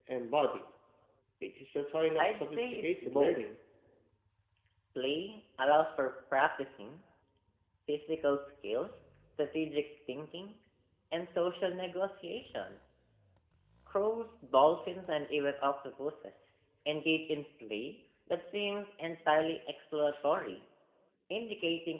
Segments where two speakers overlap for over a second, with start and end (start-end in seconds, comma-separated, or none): 2.2-3.4